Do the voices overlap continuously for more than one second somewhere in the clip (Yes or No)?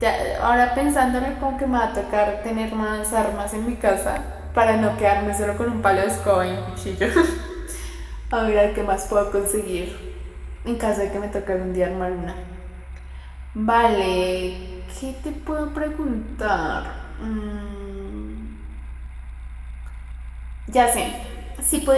No